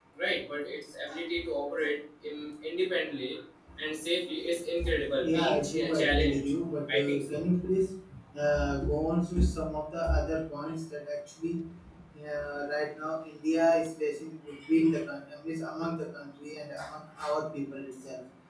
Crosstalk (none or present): present